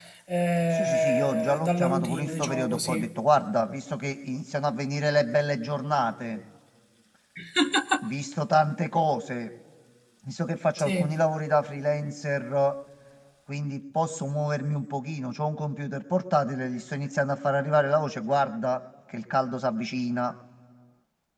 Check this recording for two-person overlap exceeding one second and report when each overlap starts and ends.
0.7-3.0

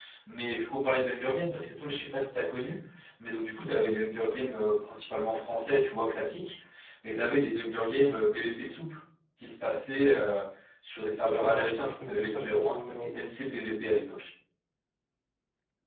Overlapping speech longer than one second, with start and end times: 11.5-13.2

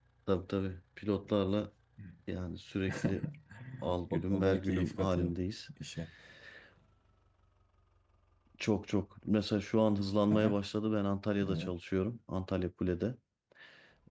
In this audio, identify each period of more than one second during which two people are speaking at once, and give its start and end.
4.1-5.3

